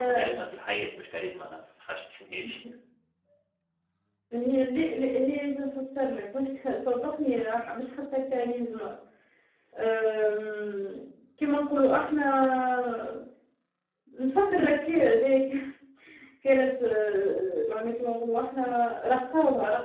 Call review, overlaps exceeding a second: none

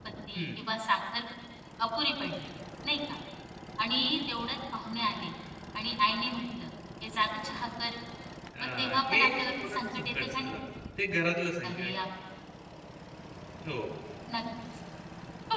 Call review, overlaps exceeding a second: present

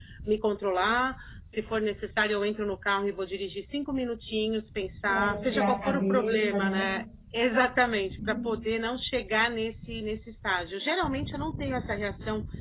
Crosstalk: present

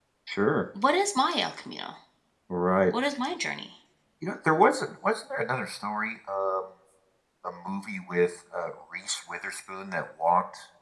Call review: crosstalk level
none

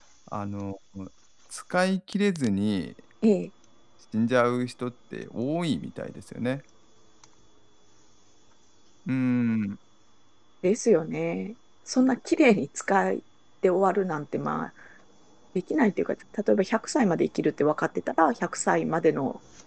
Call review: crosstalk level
none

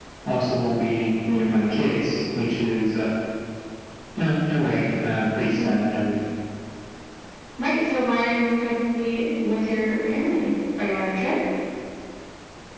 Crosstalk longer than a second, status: none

